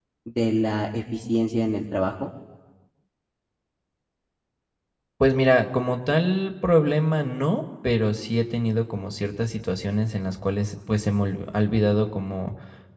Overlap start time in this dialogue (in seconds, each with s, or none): none